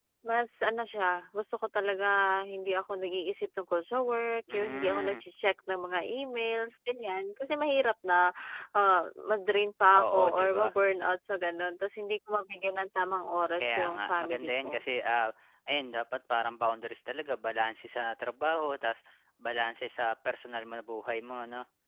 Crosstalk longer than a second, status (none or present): present